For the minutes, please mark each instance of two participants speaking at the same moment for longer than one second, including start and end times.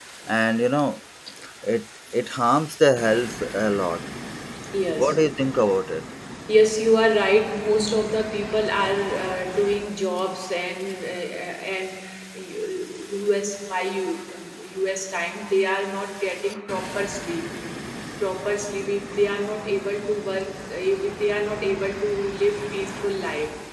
none

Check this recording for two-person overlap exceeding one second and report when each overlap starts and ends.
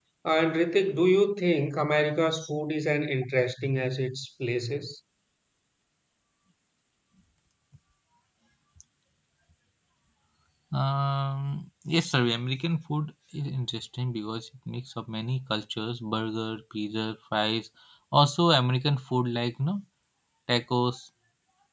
none

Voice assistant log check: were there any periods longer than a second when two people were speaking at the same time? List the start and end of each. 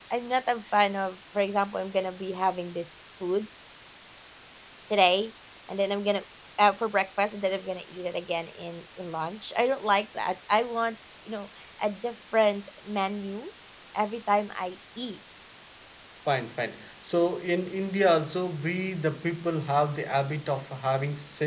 none

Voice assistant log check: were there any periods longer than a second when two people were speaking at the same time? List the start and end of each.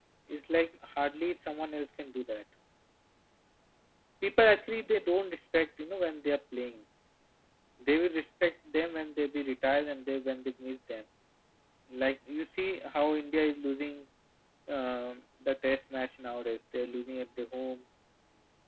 none

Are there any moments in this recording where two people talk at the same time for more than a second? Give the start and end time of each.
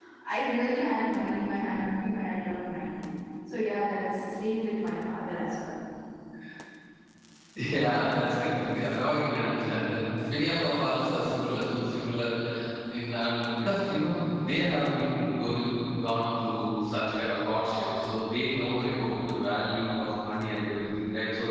none

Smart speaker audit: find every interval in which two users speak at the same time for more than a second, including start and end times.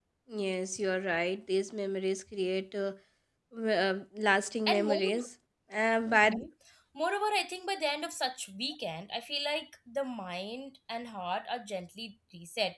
none

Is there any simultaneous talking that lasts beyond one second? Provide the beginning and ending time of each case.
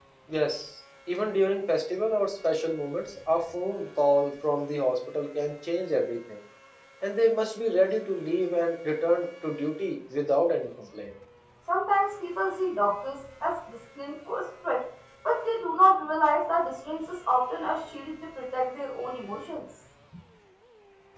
none

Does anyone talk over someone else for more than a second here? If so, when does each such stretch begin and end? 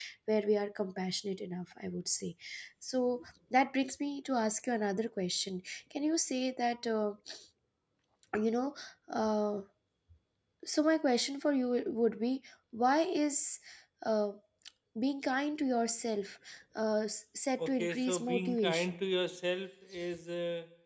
17.6-19.0

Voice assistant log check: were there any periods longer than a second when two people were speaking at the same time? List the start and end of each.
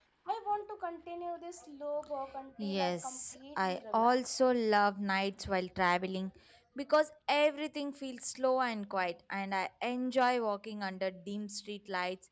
2.6-4.3

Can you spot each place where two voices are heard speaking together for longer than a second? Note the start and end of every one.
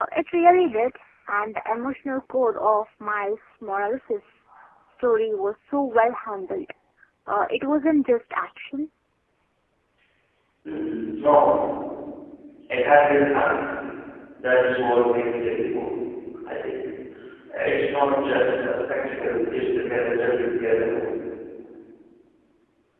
none

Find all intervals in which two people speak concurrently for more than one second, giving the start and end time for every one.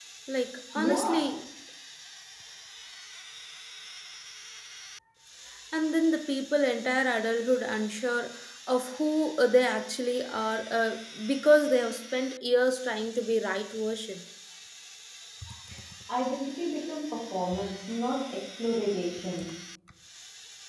none

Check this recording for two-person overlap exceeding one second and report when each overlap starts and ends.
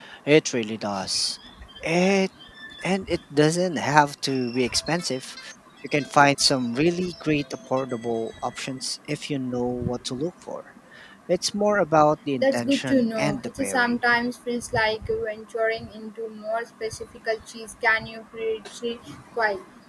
12.4-13.9

